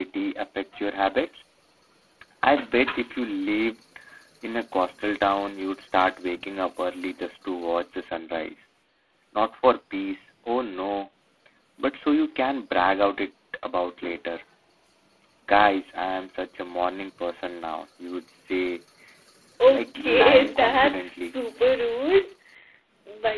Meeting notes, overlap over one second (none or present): present